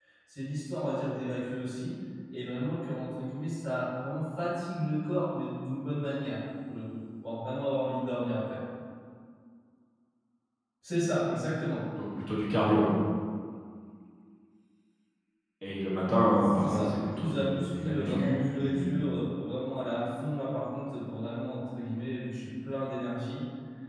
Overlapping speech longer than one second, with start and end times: 16.4-19.0

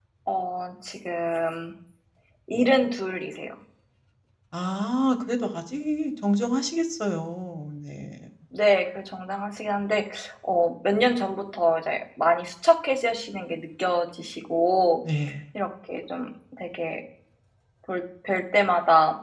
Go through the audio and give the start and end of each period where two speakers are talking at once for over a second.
none

